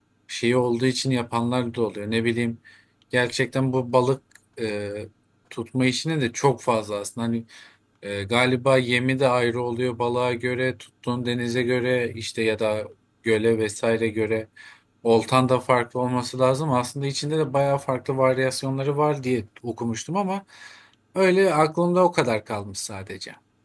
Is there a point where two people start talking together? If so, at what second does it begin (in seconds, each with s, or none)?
none